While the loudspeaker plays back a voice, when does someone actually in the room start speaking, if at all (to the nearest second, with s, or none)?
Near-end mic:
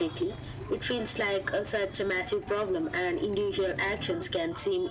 none